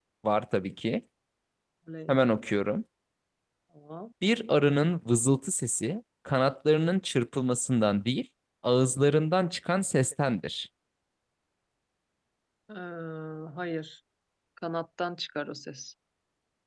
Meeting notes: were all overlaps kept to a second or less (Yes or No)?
Yes